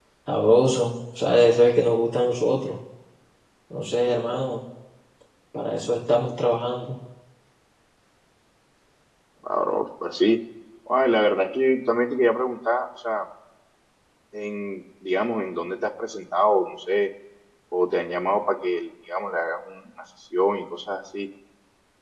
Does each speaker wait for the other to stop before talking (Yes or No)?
Yes